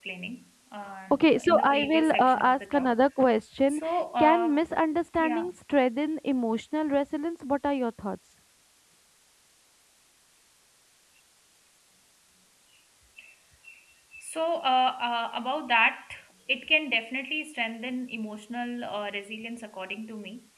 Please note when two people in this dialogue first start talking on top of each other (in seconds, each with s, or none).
1.1 s